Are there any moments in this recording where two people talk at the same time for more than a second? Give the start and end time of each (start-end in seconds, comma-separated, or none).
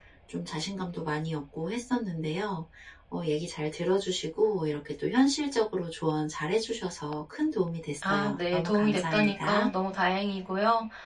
8.0-9.7